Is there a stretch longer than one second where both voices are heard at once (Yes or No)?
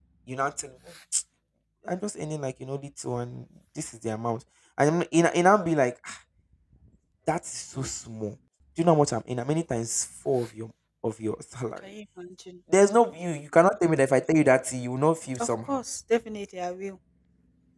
No